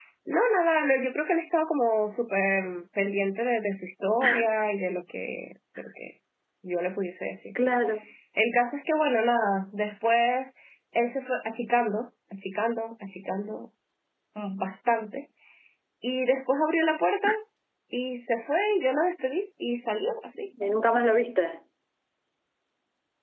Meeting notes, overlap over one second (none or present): none